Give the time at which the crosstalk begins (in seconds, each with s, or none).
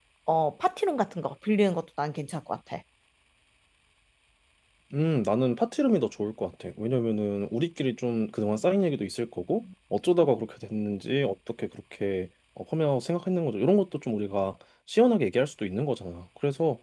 none